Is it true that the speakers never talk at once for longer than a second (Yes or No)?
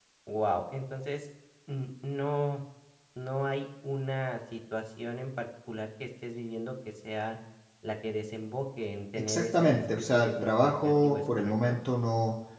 No